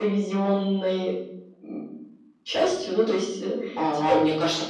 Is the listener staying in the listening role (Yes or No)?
No